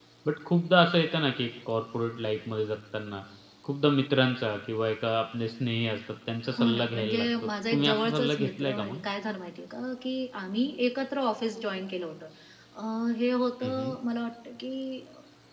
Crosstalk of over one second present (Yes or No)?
Yes